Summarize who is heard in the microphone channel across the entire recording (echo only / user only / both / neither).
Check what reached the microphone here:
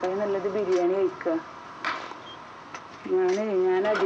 echo only